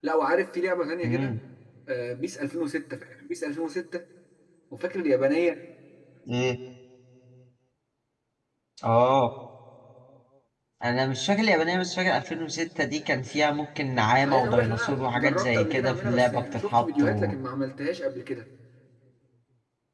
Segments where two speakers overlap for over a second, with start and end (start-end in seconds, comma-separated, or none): 14.2-17.3